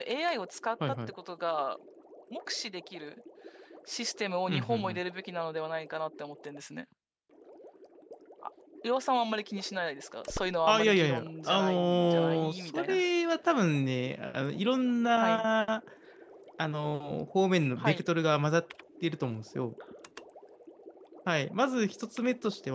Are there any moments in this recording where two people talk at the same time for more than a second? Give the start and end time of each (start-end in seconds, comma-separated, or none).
10.7-13.0